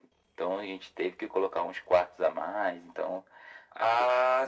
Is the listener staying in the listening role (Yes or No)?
No